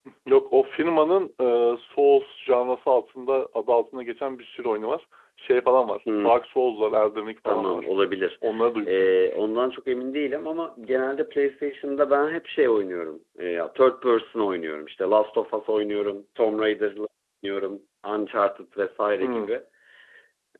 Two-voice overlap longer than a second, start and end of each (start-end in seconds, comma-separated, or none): none